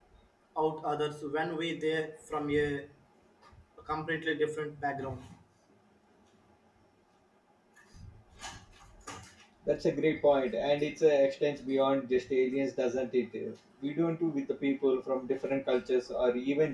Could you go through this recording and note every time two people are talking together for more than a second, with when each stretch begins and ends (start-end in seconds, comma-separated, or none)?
none